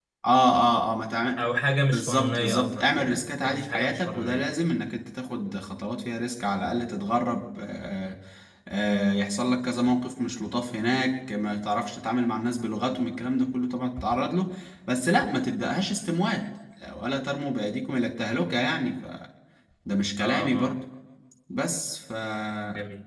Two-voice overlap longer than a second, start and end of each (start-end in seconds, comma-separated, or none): 1.9-4.5